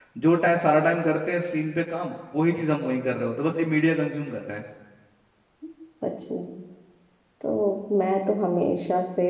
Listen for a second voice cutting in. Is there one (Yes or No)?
No